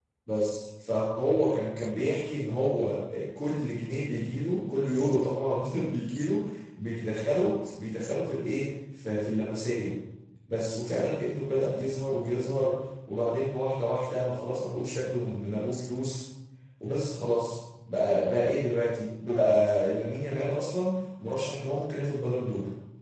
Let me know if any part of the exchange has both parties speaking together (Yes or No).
No